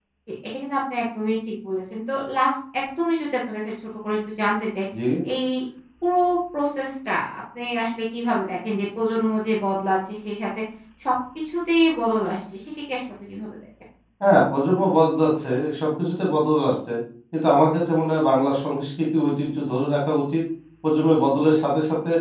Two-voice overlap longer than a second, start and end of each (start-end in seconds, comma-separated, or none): none